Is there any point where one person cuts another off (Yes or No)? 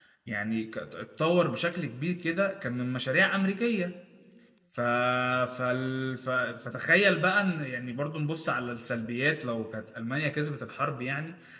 No